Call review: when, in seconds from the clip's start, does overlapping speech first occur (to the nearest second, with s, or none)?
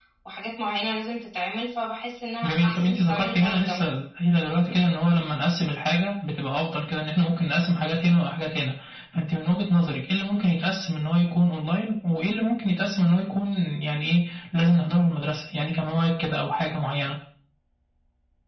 2 s